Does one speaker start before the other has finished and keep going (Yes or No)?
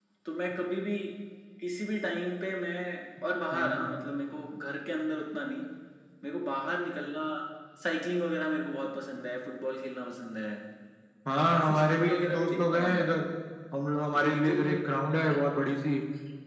Yes